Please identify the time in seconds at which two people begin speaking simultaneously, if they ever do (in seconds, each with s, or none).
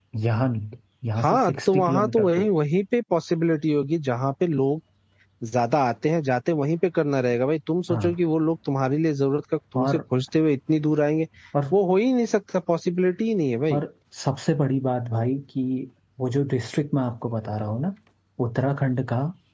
1.2 s